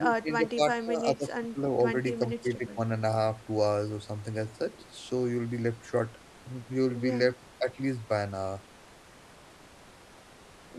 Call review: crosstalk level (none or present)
present